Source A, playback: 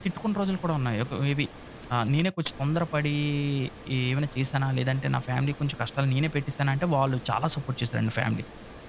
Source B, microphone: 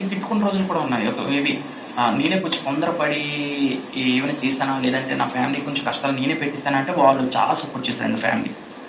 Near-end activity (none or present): none